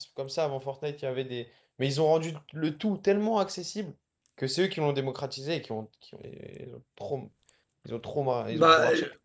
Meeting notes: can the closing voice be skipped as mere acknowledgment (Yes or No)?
No